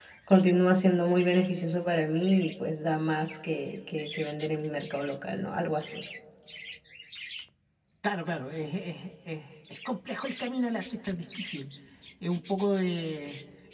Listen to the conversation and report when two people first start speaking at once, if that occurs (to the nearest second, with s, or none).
none